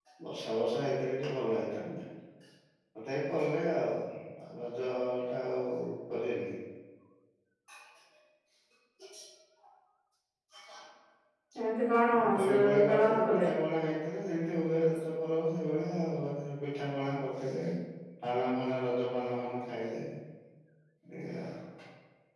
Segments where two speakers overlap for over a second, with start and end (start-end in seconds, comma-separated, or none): 12.1-13.5